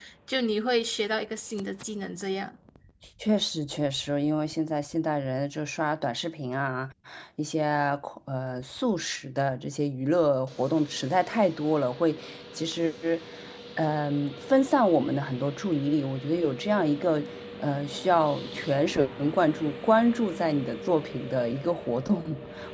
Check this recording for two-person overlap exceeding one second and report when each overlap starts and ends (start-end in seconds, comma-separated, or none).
none